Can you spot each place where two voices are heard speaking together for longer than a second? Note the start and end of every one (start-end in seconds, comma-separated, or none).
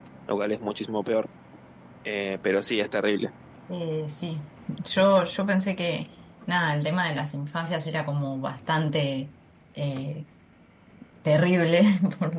none